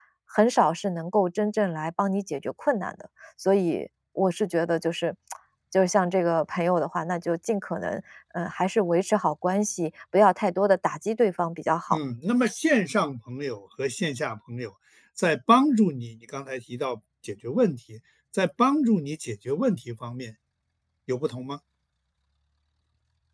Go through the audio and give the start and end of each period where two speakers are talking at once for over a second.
none

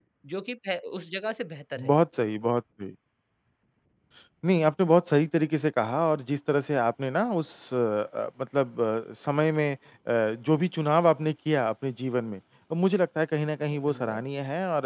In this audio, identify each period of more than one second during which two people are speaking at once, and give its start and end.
none

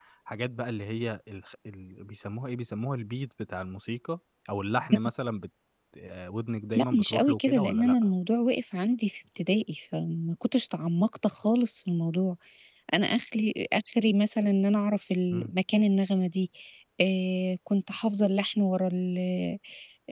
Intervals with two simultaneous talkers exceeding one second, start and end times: 6.8-8.1

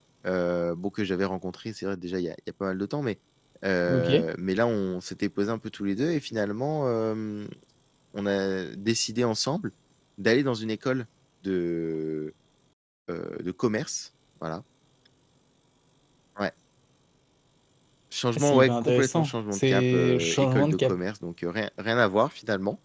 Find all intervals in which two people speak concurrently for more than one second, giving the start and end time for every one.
18.4-21.0

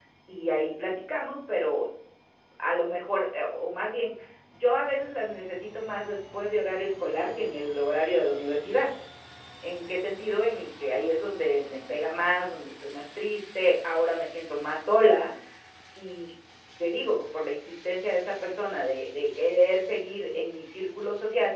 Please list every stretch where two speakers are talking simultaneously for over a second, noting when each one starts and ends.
none

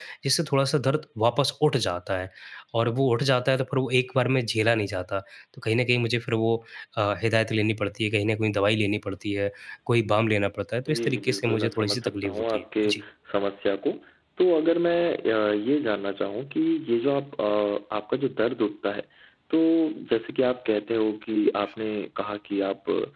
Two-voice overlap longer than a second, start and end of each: 10.9-12.9

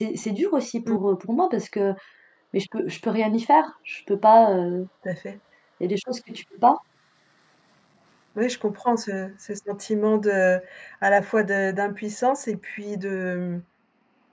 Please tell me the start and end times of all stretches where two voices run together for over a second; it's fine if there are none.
none

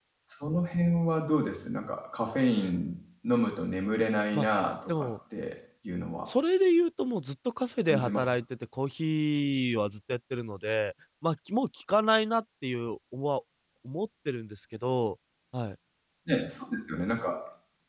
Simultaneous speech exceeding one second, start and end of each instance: none

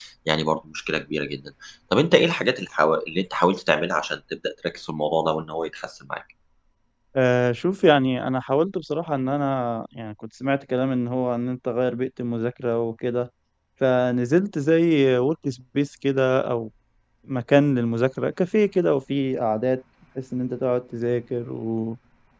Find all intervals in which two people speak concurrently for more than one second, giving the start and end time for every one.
none

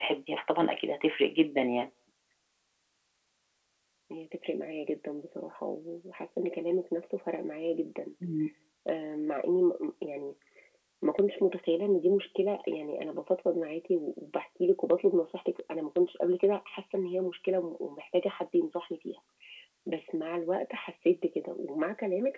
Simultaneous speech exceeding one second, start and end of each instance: none

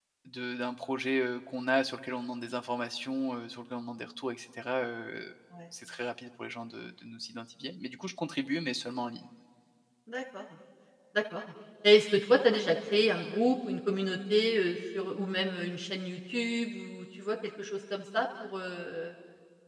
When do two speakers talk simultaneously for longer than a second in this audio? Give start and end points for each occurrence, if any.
none

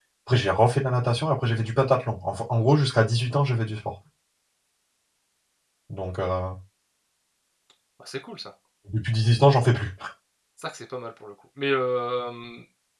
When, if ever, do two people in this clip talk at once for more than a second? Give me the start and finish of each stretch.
none

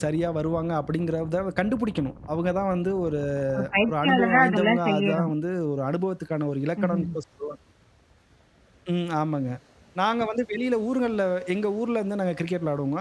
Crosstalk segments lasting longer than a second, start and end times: 3.9-5.3

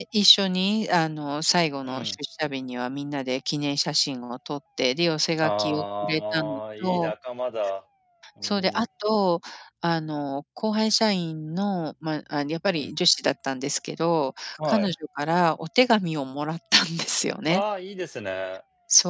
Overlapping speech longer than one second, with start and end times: 5.4-7.1

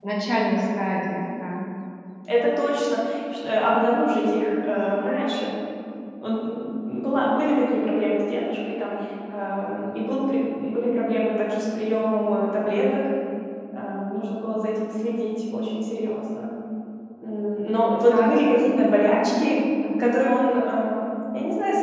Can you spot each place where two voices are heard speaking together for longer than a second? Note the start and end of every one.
18.1-19.4

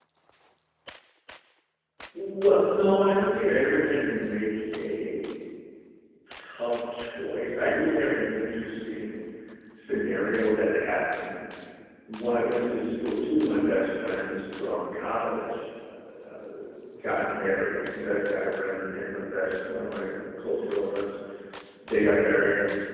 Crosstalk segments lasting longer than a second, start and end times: none

